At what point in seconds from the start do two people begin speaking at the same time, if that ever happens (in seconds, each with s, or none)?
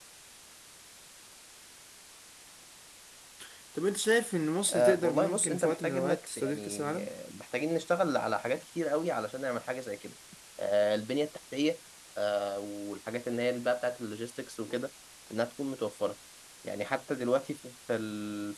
4.7 s